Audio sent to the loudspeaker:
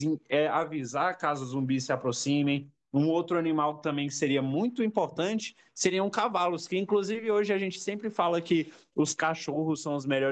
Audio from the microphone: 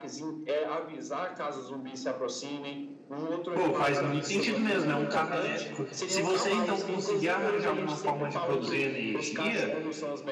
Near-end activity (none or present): present